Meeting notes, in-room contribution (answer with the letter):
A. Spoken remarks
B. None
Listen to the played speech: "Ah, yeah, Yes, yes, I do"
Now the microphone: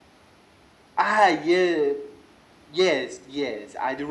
B